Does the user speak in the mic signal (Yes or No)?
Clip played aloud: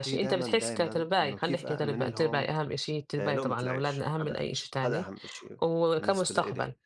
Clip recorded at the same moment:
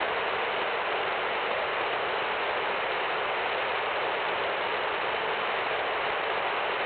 No